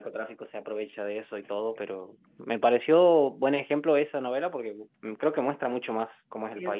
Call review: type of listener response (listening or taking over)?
taking over